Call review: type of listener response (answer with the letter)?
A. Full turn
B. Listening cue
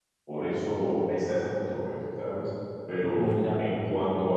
B